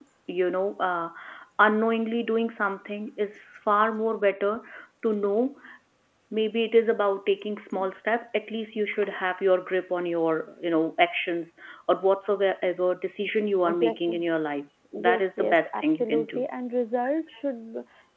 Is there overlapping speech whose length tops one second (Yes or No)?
Yes